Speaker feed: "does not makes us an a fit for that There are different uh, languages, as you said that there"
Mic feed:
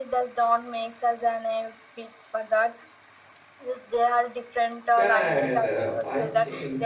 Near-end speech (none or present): present